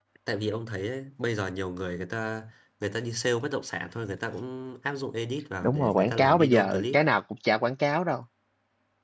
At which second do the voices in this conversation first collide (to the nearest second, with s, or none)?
6 s